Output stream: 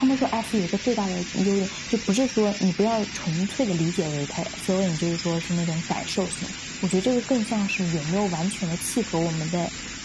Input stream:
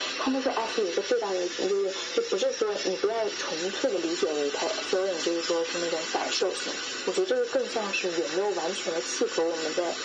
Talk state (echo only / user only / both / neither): echo only